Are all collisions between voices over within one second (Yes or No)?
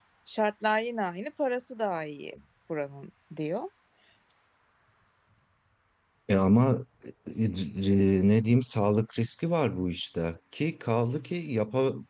Yes